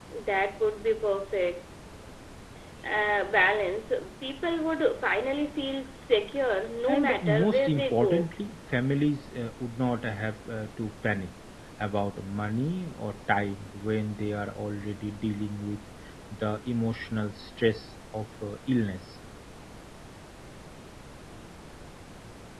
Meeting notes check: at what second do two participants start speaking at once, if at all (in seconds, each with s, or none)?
6.9 s